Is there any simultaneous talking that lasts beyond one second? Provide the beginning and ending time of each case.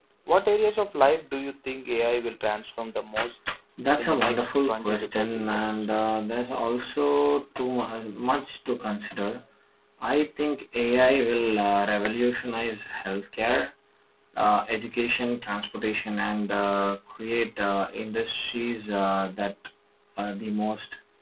4.0-5.8

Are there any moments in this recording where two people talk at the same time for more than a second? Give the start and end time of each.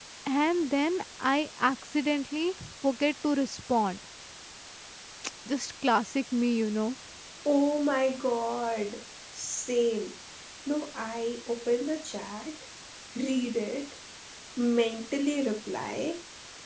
none

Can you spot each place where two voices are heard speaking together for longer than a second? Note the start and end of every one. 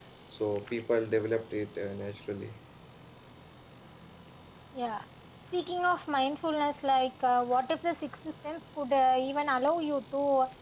none

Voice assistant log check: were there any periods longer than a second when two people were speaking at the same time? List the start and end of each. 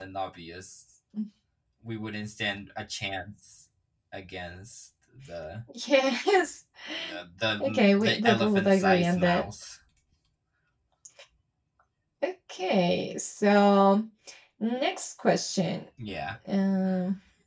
7.6-9.4

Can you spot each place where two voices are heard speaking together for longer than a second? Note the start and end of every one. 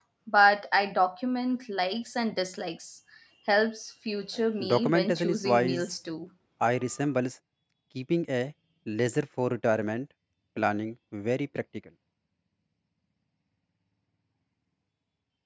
4.6-6.0

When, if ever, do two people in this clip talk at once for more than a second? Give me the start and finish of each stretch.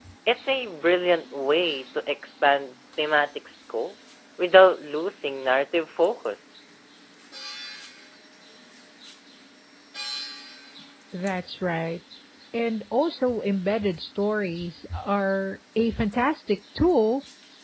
none

